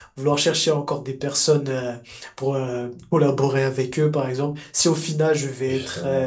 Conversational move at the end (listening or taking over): listening